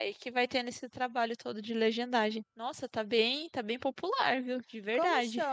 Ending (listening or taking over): taking over